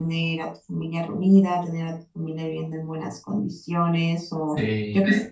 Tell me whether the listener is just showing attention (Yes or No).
Yes